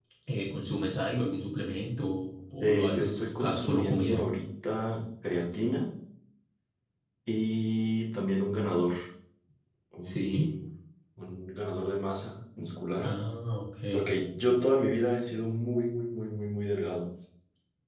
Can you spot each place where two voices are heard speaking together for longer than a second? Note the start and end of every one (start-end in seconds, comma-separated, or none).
2.6-4.2